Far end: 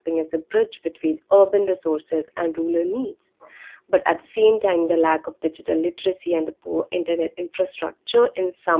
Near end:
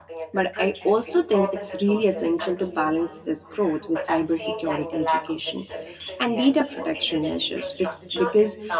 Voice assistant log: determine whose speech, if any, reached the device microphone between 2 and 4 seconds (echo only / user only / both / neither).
both